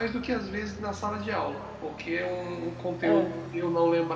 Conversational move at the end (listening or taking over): listening